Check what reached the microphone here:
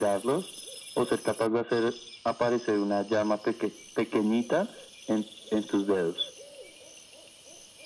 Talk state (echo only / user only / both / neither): echo only